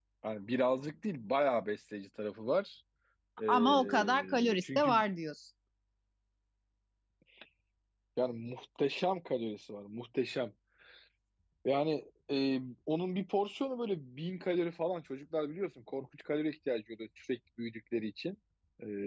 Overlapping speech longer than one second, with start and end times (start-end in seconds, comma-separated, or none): 3.5-5.0